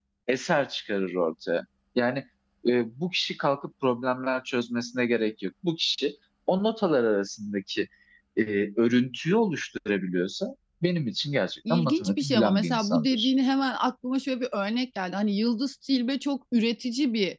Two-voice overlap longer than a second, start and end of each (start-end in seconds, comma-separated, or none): 11.7-13.3